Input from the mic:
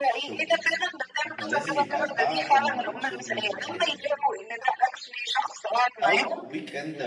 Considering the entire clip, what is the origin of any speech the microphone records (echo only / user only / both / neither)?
both